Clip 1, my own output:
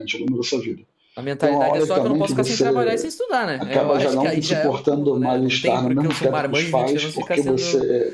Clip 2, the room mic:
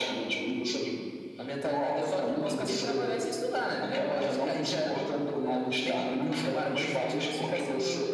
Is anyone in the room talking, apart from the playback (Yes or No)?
No